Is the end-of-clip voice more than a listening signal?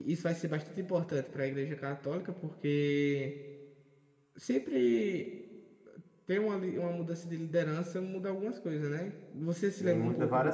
Yes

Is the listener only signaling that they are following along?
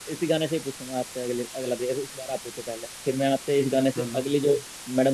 Yes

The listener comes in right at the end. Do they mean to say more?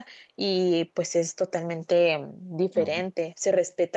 No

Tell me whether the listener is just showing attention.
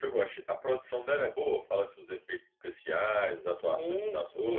No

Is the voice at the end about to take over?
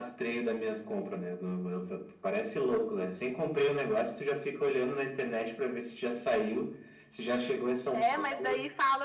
Yes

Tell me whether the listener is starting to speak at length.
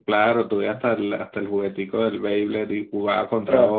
Yes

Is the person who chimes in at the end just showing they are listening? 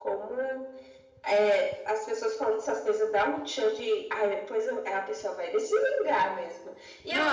Yes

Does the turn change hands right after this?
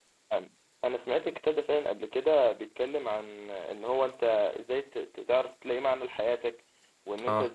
No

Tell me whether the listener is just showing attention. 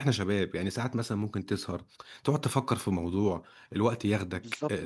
No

